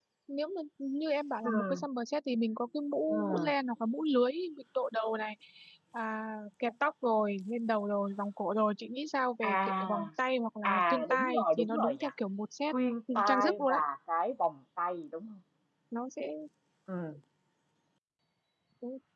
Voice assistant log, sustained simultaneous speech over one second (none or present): present